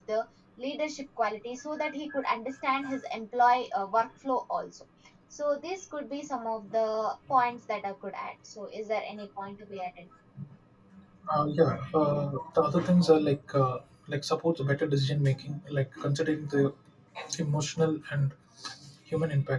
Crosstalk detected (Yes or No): No